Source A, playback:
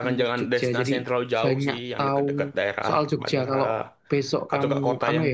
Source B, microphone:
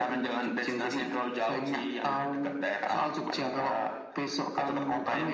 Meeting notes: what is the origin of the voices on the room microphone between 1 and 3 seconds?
echo only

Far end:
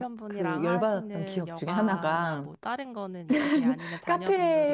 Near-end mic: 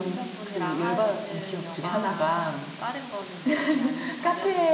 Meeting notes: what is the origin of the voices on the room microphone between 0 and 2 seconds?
echo only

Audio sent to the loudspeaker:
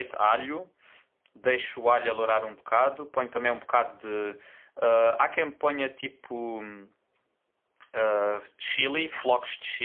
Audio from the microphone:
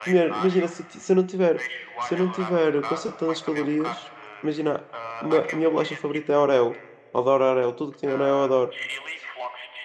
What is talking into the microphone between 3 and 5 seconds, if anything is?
both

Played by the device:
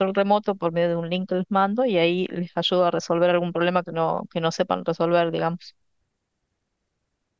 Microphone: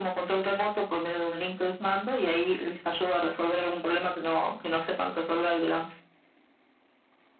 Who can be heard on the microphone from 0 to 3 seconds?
echo only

